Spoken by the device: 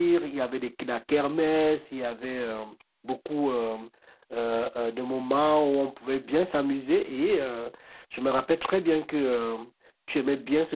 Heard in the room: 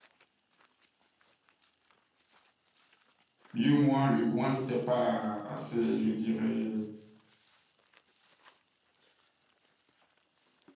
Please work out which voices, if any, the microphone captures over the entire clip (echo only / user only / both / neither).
user only